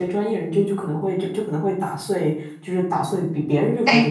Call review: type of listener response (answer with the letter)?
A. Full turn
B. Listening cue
B